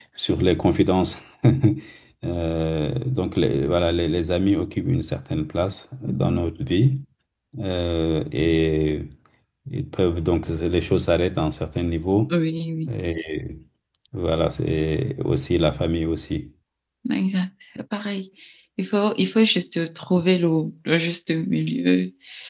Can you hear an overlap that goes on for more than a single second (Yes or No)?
No